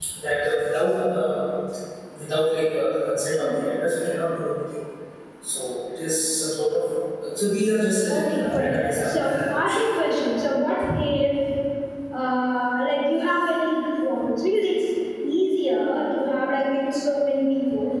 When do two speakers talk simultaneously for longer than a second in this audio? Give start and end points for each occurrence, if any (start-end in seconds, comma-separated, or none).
8.1-10.3